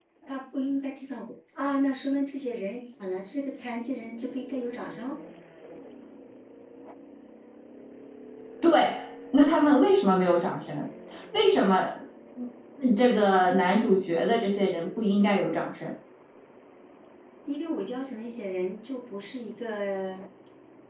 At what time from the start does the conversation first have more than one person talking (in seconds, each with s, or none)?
none